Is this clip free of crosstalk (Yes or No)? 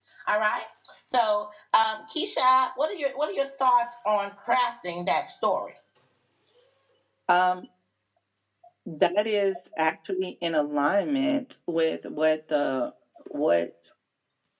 Yes